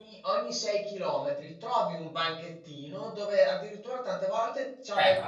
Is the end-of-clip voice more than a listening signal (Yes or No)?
No